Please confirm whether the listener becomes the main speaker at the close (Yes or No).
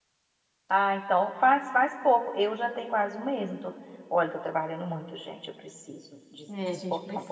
Yes